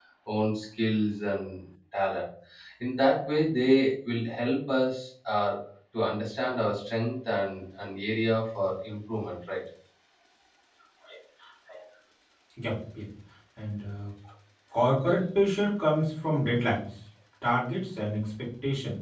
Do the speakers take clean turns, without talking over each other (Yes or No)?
Yes